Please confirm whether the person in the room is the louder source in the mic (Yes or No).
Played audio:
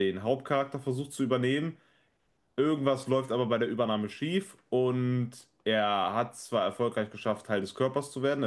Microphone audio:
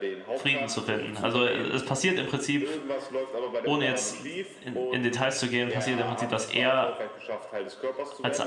Yes